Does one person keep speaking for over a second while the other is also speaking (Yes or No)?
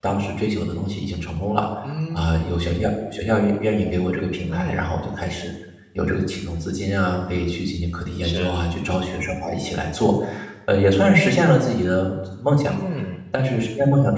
No